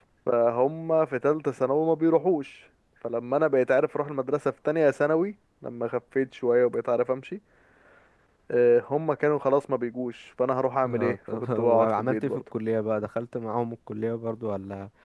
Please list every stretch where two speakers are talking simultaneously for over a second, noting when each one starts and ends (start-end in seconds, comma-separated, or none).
10.8-12.4